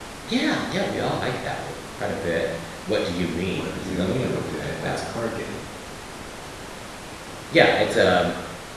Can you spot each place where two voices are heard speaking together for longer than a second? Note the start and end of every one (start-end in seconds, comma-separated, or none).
3.4-5.0